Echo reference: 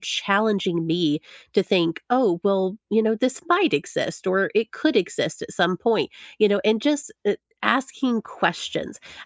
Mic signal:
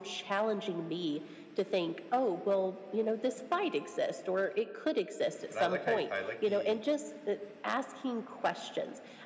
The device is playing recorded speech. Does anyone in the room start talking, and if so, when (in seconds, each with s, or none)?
5.5 s